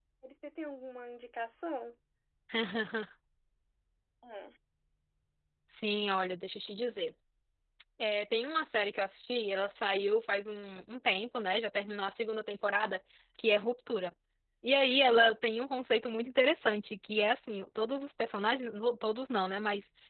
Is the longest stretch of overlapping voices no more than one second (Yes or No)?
Yes